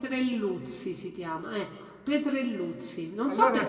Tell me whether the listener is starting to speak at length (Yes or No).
No